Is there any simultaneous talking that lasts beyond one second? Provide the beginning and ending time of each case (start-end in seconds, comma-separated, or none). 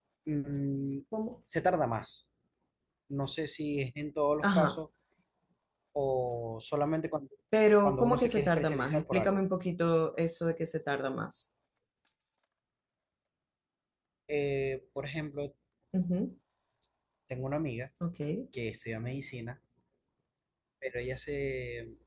7.8-9.4